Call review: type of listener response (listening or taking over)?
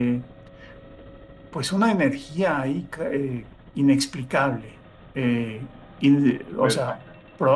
listening